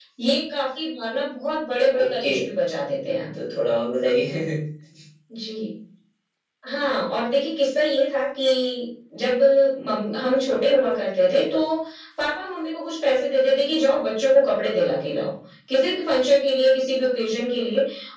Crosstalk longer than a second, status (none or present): none